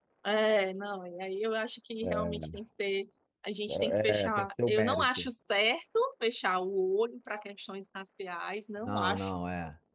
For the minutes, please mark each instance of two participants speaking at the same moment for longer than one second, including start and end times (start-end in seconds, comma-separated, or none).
3.7-5.3